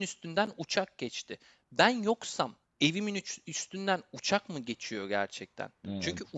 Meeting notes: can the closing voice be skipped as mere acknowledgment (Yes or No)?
Yes